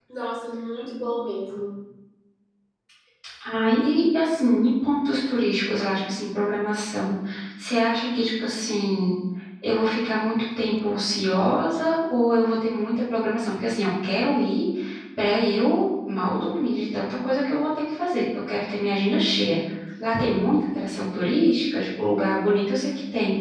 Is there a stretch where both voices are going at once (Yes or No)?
No